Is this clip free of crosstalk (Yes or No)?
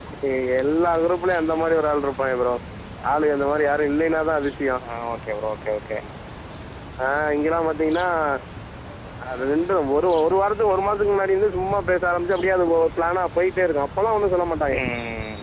Yes